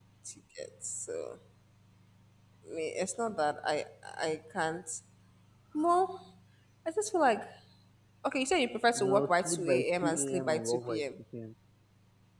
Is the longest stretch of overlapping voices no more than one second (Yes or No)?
No